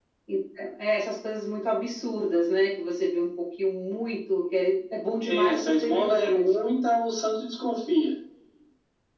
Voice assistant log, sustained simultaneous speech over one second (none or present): present